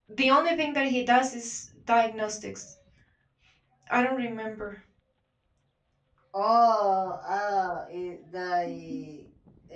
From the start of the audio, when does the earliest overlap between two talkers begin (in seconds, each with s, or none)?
none